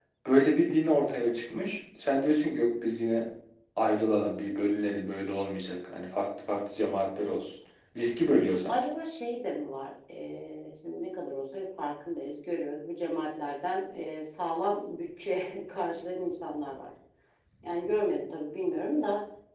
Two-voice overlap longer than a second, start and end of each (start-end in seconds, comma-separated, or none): none